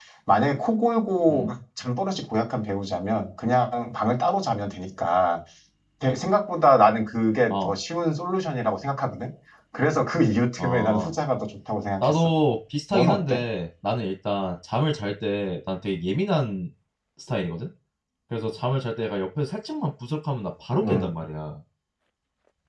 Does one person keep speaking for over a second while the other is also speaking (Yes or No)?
No